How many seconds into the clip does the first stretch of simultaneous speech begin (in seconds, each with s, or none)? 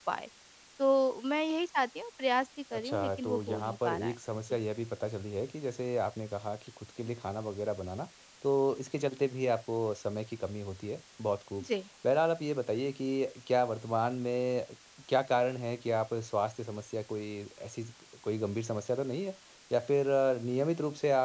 2.7 s